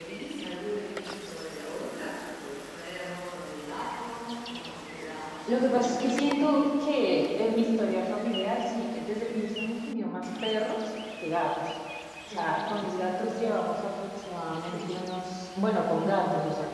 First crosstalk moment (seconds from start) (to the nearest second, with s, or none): 5 s